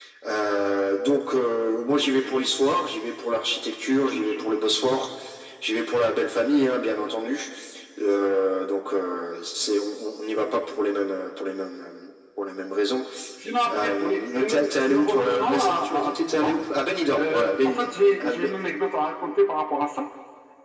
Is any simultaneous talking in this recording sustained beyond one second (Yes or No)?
Yes